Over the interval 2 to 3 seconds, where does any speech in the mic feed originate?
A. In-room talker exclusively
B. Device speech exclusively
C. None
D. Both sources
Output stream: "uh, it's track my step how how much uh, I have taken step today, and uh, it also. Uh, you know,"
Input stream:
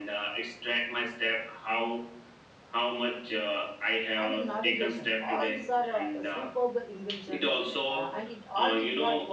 B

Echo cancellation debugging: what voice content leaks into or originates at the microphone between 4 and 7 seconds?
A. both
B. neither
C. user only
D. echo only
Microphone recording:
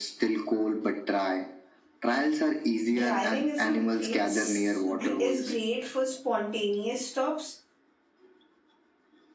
A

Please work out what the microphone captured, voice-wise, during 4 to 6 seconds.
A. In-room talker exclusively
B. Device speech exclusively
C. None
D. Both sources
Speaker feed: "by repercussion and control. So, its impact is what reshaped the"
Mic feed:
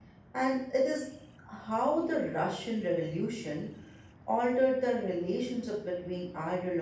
A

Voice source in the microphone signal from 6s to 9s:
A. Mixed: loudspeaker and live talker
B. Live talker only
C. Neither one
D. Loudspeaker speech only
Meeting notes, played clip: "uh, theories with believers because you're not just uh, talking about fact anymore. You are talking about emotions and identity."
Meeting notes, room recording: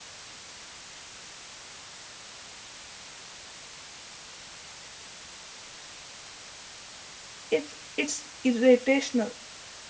B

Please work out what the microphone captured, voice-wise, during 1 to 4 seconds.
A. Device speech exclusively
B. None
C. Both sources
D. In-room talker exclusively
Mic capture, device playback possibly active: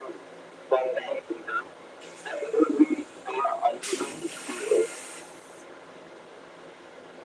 A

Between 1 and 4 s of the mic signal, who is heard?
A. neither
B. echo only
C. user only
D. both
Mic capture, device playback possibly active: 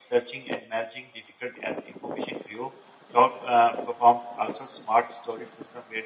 C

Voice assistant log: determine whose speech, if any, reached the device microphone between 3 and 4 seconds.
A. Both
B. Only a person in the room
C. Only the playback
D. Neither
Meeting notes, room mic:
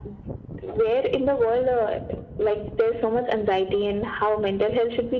C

